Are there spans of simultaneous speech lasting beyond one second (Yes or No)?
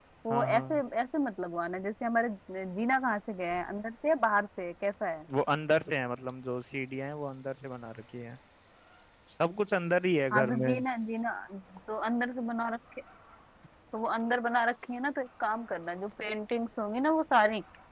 No